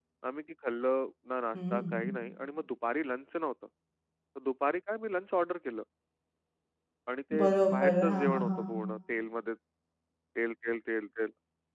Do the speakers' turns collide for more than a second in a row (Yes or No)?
Yes